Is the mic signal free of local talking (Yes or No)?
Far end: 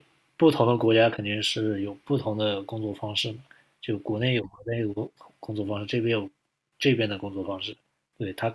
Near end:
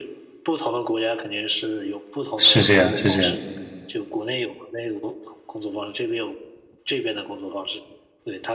No